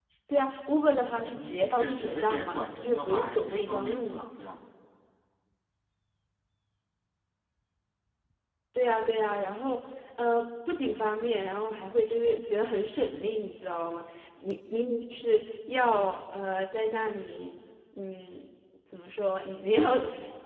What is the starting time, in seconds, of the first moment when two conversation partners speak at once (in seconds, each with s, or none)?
1.3 s